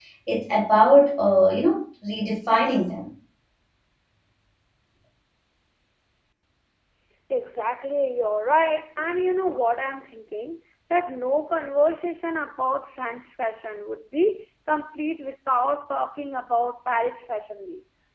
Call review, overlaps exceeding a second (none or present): none